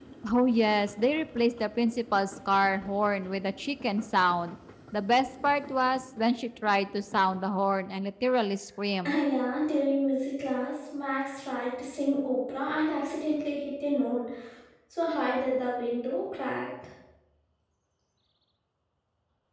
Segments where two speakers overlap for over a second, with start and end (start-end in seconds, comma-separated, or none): none